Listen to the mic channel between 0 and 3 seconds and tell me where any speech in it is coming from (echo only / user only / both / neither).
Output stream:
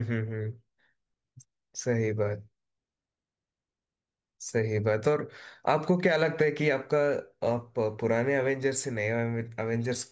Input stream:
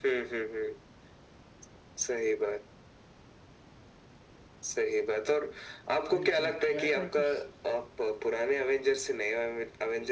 echo only